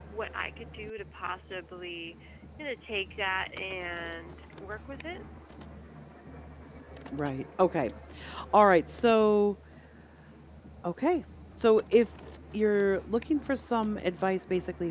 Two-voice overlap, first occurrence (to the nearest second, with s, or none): none